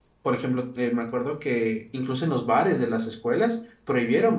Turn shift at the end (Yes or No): No